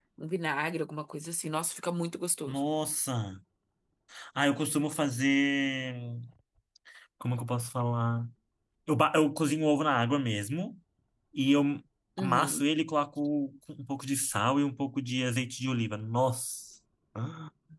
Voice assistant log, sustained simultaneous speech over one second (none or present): none